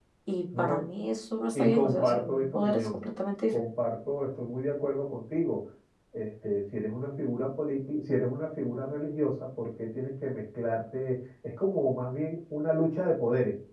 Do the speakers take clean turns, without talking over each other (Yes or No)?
No